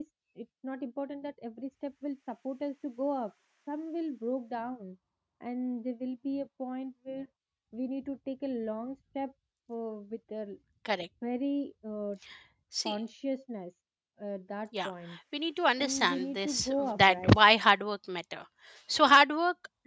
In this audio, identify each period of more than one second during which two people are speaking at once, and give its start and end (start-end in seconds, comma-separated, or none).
15.8-17.4